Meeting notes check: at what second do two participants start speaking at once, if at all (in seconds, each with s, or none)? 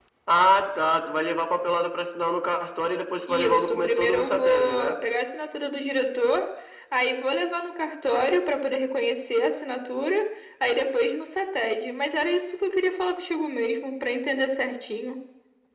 3.3 s